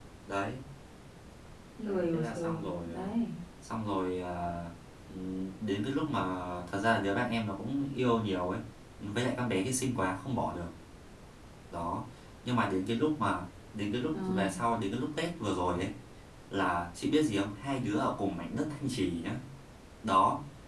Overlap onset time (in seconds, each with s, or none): 1.9 s